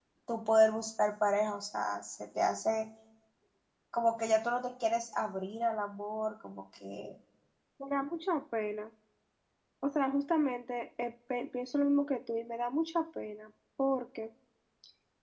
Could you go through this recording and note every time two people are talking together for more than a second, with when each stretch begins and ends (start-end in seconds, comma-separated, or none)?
none